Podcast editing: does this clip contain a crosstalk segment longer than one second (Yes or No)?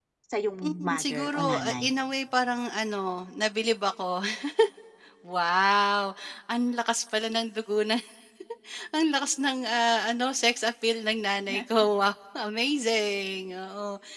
Yes